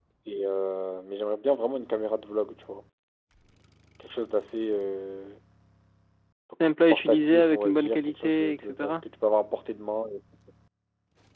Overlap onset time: 6.6 s

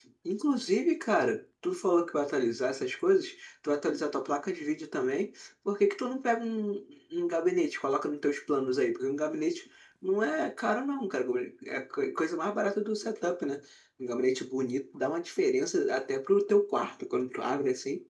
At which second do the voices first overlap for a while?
none

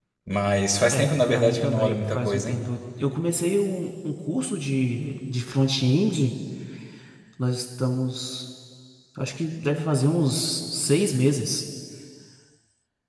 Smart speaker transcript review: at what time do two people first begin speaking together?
0.9 s

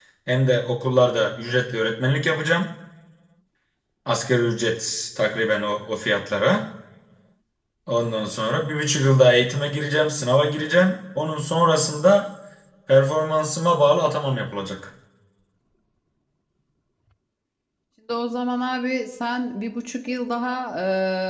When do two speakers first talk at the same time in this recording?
none

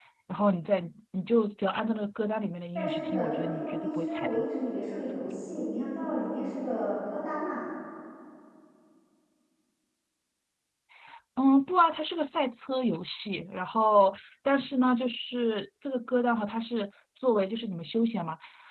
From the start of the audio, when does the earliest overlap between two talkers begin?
2.8 s

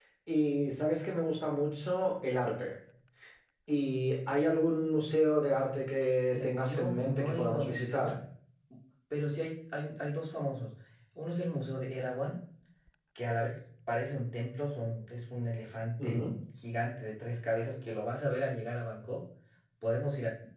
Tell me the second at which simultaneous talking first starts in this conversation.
6.3 s

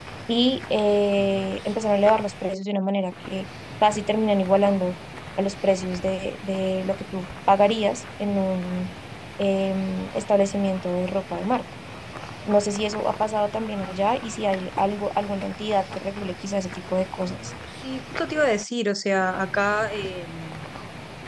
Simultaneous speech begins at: none

